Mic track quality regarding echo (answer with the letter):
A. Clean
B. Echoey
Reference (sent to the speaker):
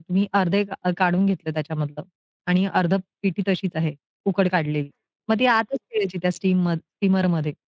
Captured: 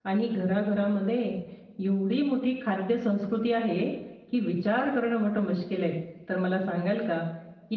A